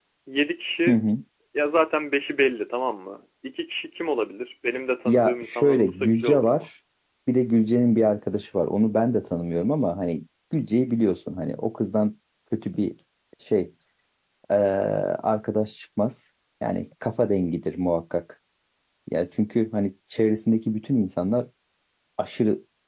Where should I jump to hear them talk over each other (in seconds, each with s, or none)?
5.0 s